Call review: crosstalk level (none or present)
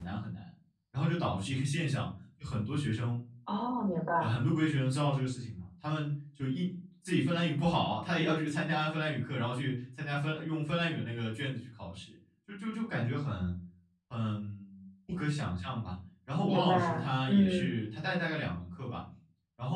present